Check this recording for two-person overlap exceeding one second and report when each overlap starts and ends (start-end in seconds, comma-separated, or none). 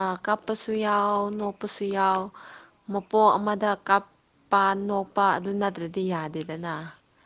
none